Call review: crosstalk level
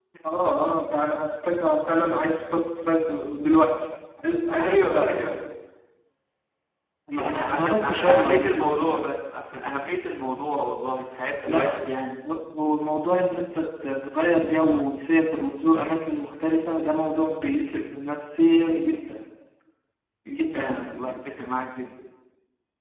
present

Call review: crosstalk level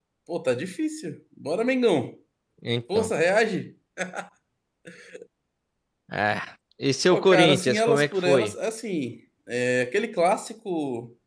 present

